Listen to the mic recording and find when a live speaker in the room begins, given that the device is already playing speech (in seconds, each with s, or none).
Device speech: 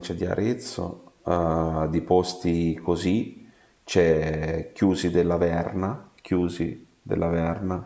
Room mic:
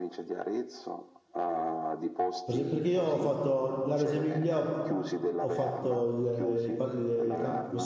2.4 s